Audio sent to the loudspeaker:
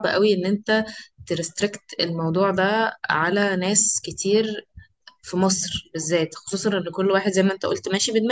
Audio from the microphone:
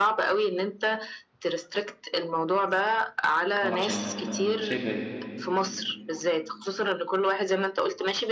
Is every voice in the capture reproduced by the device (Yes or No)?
No